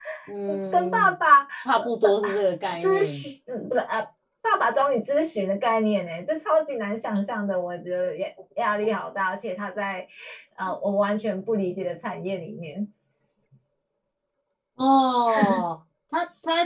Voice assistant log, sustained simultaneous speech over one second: present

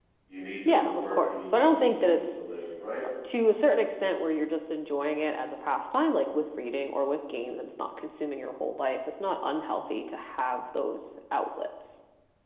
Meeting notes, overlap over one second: present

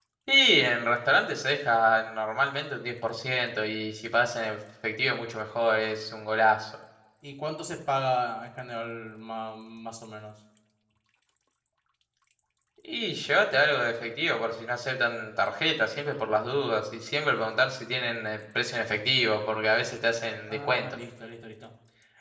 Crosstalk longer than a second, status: none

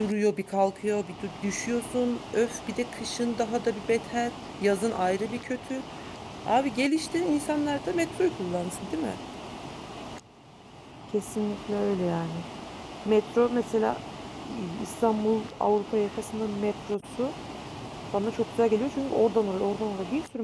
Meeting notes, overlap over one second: none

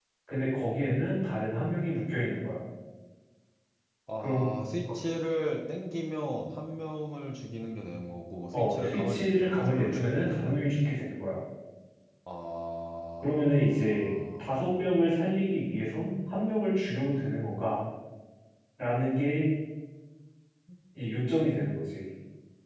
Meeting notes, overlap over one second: present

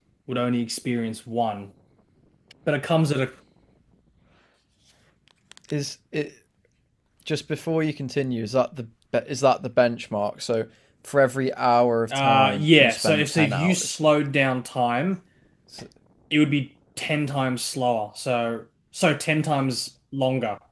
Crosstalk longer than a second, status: present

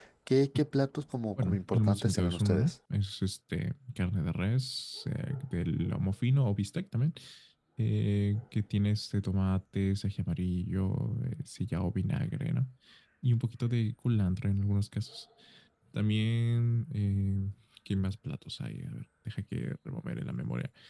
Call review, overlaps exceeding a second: present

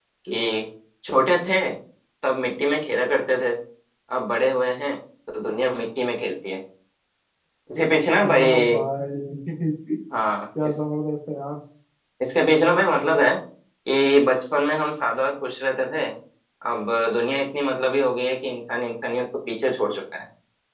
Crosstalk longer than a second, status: none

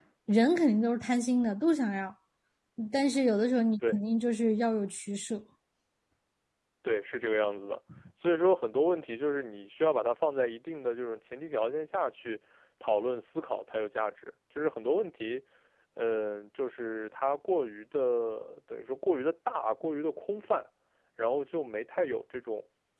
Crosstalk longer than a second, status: none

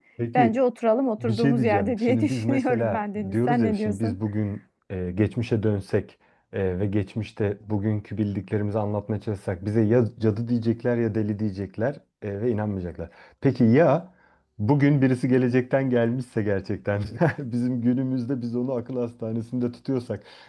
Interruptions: present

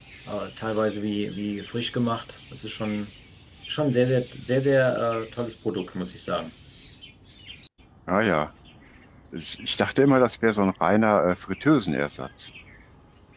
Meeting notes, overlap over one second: none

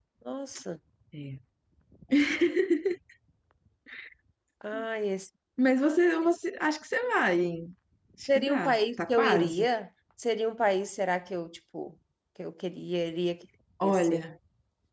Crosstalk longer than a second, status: present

